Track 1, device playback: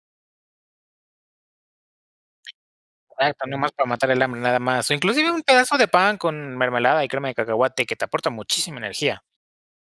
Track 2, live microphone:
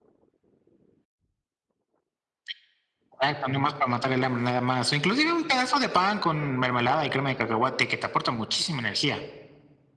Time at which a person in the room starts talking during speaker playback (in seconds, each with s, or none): none